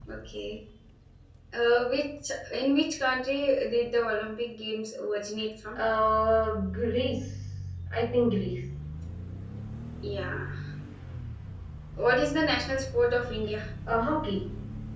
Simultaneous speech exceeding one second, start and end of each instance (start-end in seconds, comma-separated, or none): none